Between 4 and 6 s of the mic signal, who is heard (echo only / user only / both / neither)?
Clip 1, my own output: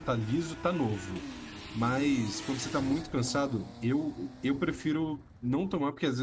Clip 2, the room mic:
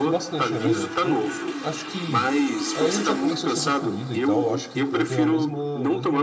both